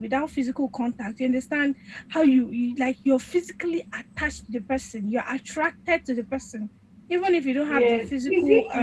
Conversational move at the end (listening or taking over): taking over